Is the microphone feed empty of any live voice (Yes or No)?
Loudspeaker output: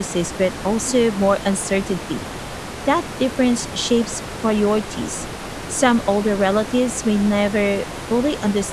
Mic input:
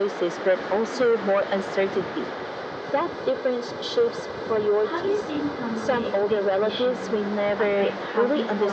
No